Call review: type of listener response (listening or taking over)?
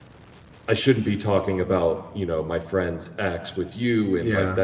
listening